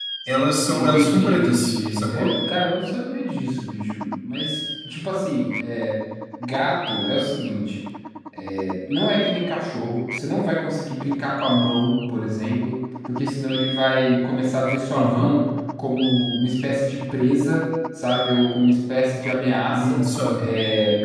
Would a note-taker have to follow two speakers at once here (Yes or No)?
Yes